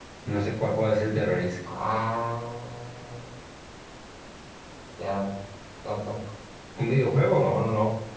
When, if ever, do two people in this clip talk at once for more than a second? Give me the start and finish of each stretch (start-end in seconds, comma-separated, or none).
none